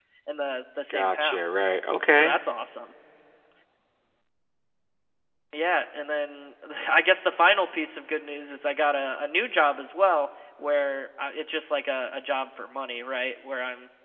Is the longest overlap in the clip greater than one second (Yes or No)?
No